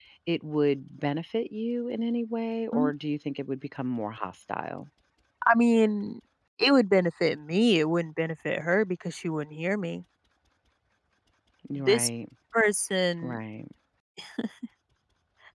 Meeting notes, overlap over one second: none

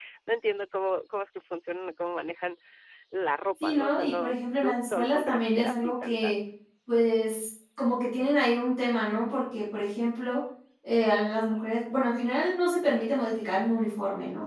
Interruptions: present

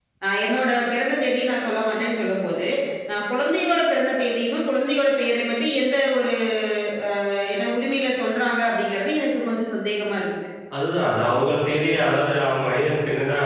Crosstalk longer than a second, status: none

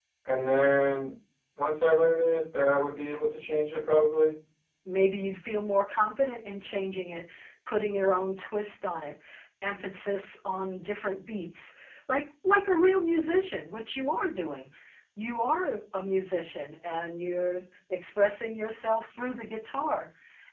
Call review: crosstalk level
none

